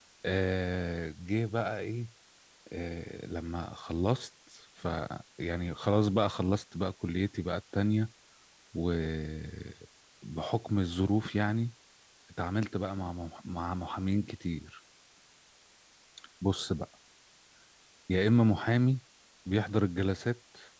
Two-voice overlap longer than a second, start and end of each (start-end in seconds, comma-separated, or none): none